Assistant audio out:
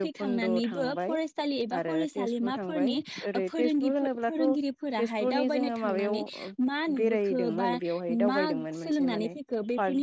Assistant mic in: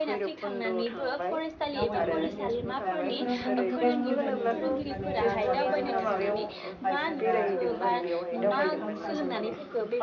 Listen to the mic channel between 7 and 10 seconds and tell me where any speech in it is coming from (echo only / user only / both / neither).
both